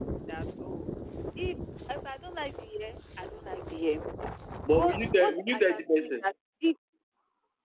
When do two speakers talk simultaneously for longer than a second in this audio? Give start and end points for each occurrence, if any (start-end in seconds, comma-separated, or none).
4.8-6.2